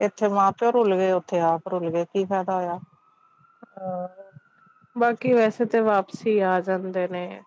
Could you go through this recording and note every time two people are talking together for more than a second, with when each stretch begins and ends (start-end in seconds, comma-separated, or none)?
none